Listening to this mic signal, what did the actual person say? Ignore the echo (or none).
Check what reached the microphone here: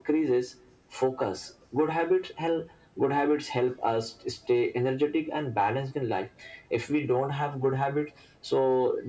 none